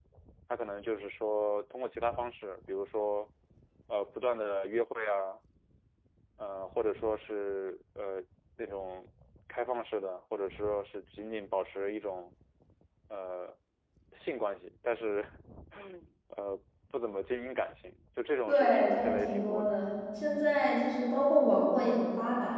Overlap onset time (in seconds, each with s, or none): 18.5 s